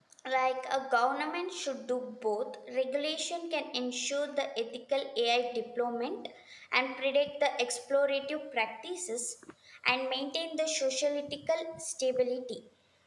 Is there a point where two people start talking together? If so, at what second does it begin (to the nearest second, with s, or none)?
none